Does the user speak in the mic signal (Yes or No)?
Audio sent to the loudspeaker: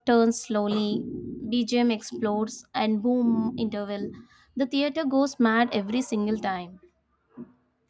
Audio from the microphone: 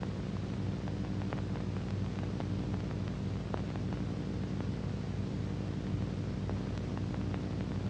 No